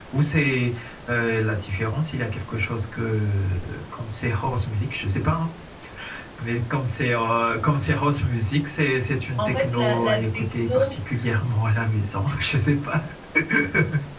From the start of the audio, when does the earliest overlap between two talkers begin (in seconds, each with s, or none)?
9.4 s